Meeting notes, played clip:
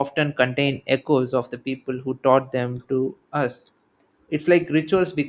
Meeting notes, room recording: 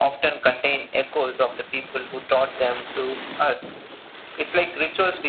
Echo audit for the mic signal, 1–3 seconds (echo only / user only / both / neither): echo only